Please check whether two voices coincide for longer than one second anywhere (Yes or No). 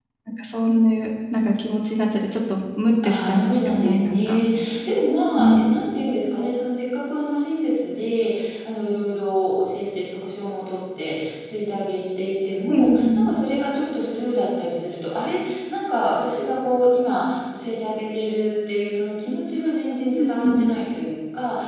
Yes